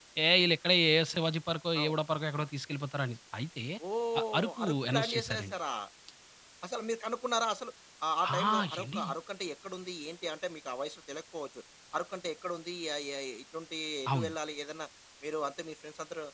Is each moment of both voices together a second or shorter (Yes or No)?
No